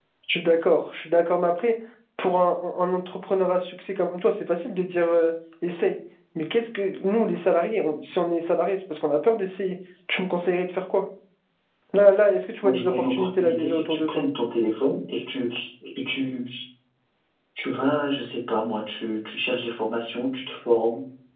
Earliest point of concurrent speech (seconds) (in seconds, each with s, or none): 12.6 s